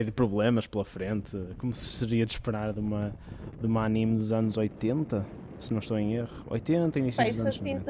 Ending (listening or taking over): taking over